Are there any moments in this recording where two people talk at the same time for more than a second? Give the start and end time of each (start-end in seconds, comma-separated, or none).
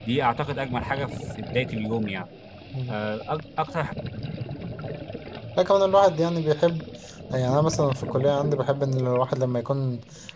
none